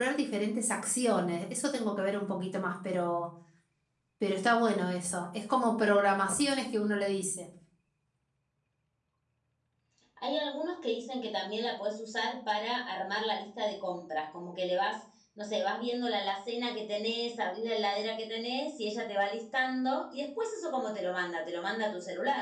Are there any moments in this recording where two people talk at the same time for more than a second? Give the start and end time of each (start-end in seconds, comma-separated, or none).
none